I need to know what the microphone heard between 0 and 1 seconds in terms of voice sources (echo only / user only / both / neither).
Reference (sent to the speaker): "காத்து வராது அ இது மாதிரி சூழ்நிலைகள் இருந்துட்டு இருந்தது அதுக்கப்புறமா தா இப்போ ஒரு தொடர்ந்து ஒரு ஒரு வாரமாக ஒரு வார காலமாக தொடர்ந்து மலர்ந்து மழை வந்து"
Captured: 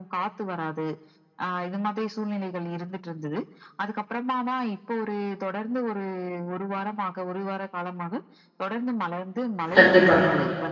echo only